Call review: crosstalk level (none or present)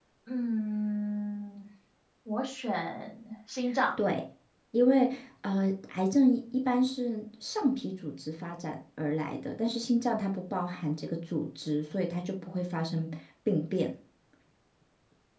none